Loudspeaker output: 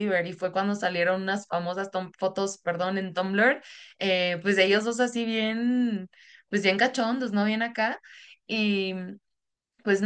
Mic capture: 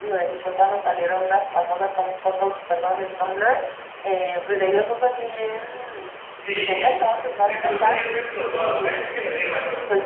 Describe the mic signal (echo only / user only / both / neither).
both